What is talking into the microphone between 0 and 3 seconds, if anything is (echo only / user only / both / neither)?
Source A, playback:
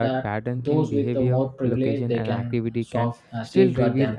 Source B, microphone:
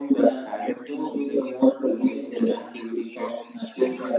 echo only